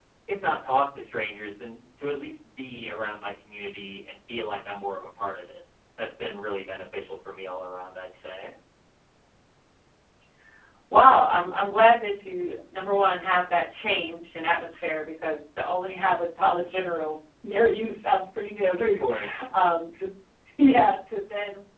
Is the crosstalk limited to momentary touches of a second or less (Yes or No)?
Yes